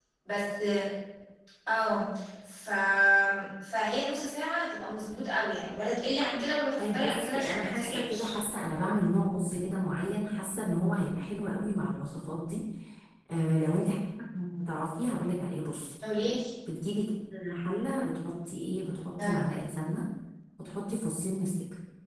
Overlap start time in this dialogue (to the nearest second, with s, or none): 7 s